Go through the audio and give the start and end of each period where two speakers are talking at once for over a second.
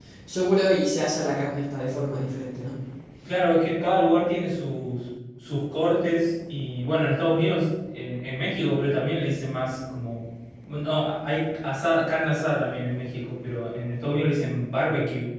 none

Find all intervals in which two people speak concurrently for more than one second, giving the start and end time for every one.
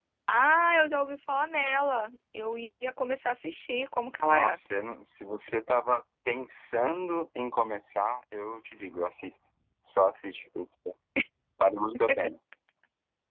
none

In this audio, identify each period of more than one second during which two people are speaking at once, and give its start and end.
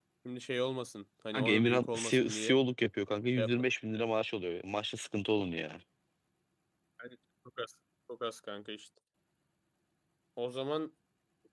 1.3-2.6

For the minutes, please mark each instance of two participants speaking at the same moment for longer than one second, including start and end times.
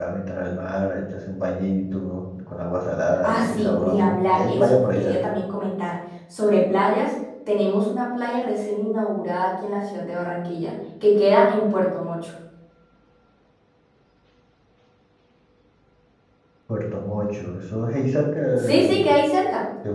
3.2-5.3

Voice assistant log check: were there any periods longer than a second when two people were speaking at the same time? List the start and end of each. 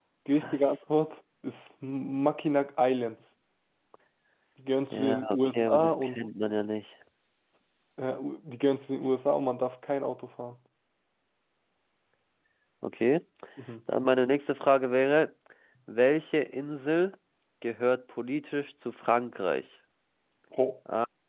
4.9-6.2

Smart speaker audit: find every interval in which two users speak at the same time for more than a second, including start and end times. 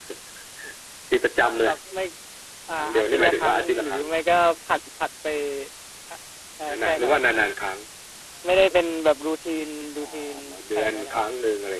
2.8-4.0

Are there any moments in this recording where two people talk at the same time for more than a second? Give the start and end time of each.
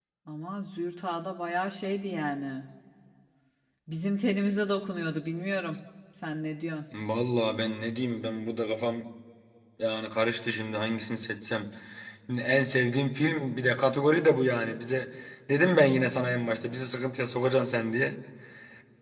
none

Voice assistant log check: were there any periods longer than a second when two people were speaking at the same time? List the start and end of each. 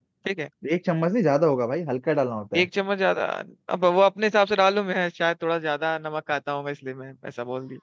none

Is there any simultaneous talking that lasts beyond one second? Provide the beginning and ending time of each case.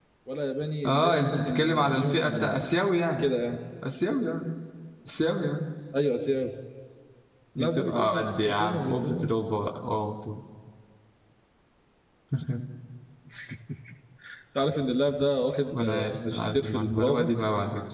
0.8-2.6, 7.6-9.3, 15.7-17.3

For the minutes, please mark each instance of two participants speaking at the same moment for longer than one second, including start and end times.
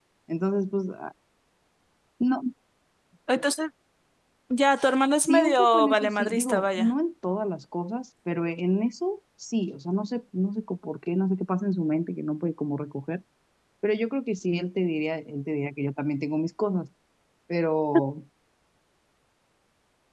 5.2-6.9

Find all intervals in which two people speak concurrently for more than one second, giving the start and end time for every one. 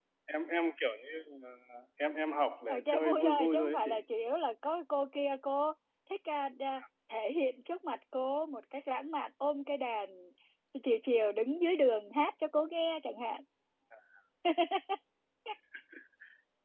2.7-3.9

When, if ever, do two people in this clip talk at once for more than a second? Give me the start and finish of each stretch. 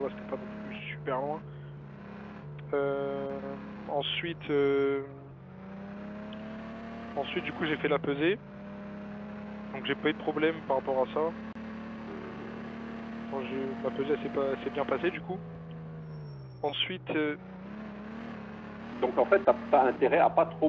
none

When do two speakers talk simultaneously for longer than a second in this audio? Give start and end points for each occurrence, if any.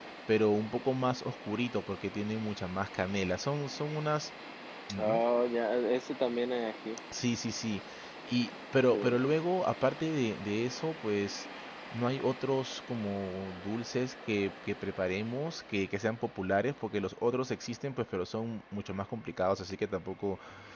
none

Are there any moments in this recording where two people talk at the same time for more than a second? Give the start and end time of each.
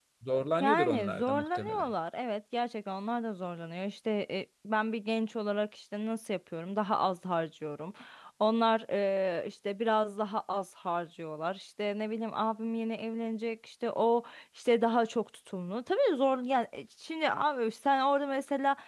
0.6-1.9

